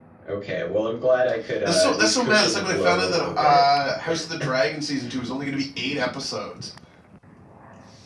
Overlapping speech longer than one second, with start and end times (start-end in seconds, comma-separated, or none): 1.6-3.6